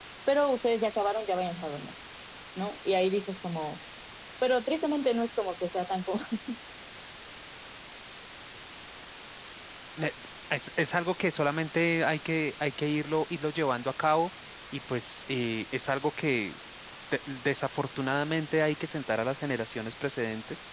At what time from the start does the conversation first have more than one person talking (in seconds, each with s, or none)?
none